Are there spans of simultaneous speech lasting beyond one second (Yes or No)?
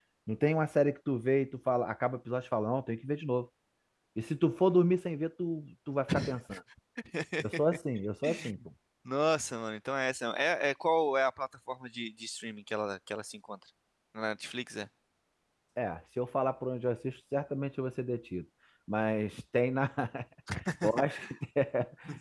No